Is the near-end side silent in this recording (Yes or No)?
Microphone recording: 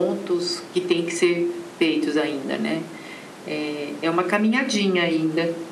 Yes